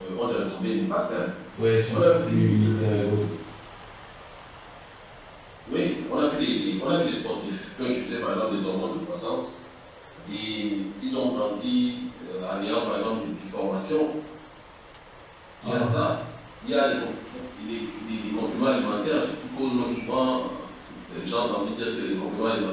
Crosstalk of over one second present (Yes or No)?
Yes